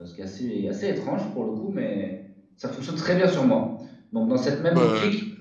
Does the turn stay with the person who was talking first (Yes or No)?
Yes